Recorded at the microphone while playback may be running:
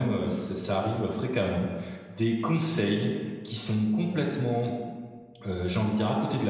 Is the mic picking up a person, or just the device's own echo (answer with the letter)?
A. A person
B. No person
B